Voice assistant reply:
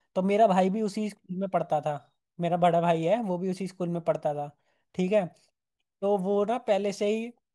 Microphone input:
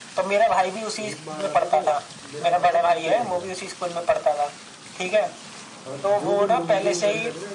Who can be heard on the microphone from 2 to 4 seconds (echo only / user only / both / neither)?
both